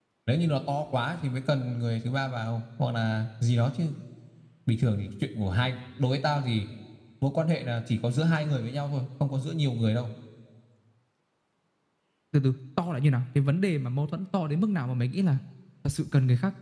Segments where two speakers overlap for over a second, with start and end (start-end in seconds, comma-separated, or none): none